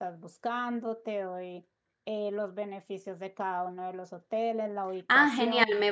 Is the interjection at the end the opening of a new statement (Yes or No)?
Yes